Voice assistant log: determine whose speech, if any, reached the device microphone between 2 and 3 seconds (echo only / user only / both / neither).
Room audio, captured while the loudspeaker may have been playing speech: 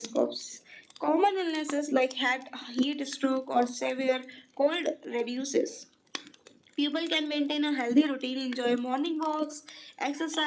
echo only